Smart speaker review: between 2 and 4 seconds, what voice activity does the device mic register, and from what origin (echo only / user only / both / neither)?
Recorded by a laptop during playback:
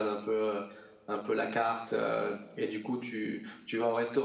echo only